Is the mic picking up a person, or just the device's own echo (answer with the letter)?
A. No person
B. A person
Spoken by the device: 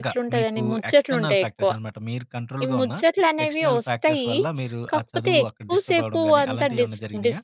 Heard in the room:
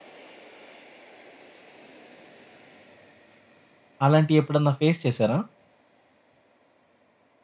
B